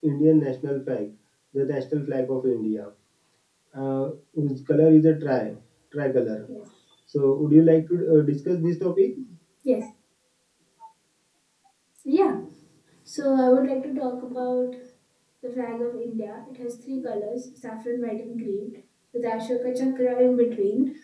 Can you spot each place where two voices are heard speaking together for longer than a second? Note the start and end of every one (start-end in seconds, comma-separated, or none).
none